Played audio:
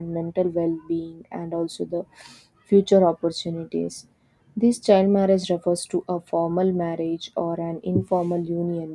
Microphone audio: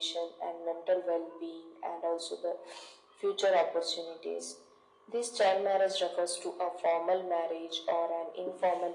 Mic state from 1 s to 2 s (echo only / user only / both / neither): echo only